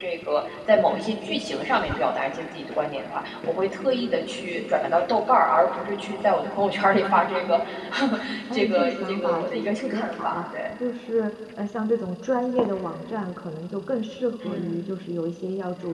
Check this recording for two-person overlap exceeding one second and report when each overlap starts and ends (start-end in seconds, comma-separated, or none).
8.5-10.4